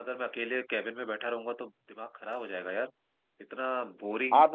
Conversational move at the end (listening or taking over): listening